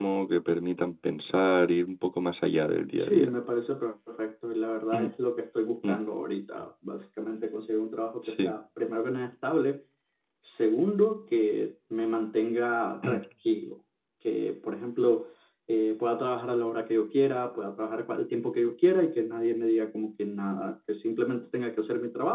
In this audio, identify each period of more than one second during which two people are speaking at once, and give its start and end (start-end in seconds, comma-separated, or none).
none